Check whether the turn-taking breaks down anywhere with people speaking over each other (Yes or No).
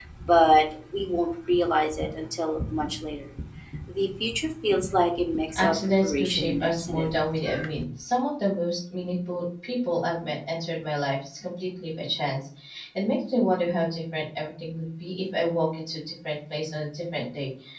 Yes